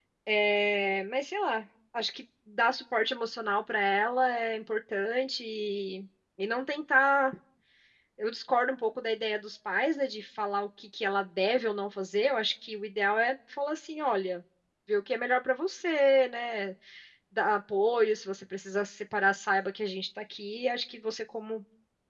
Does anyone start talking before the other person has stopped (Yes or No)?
No